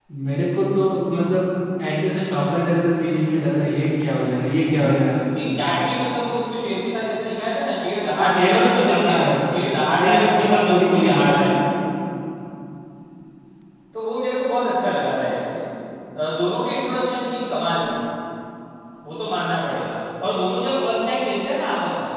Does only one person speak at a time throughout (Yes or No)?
No